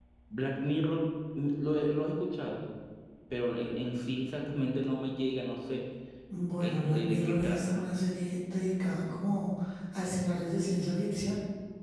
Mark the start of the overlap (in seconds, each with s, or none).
6.6 s